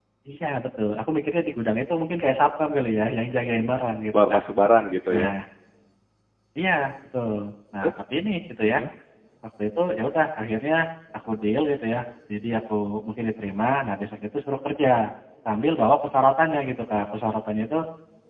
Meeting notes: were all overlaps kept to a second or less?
Yes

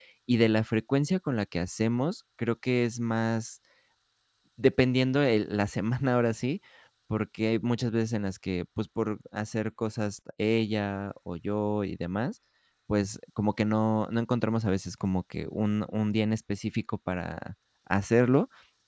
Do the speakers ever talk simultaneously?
No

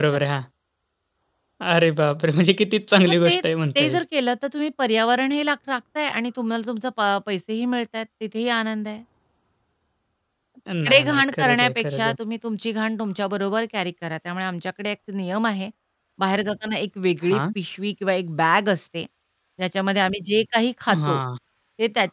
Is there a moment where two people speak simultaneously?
Yes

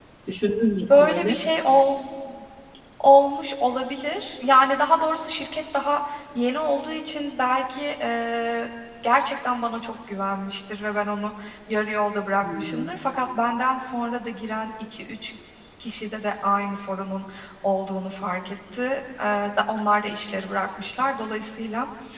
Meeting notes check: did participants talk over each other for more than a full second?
No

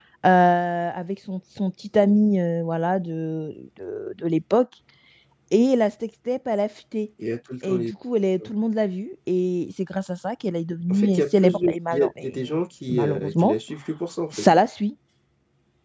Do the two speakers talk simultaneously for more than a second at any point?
Yes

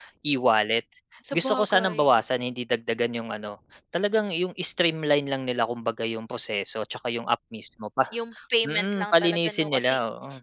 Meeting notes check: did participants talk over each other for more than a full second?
Yes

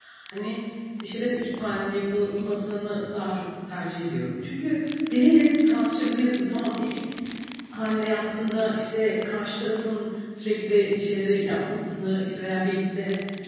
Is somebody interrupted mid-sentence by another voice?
No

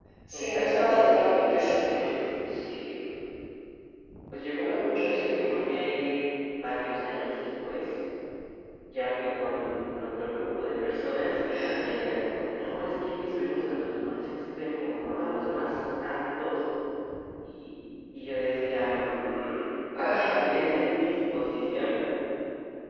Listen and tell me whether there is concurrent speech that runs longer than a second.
Yes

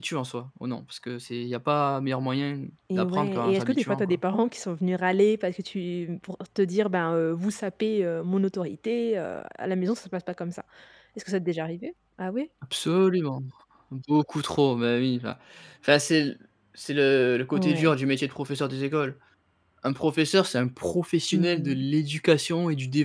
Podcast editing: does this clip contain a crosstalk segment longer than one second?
Yes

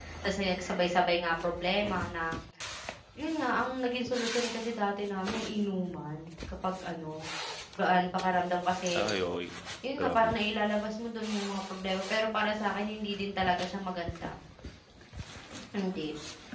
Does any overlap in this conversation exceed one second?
No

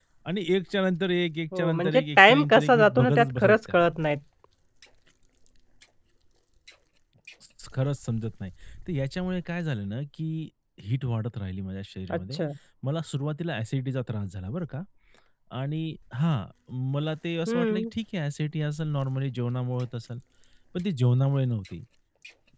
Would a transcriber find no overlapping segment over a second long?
No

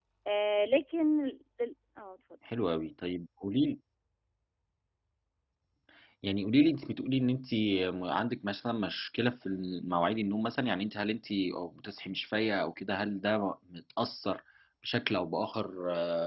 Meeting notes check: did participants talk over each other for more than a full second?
No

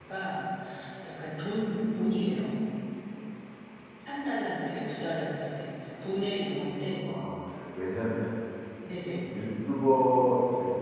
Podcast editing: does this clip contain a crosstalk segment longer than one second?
No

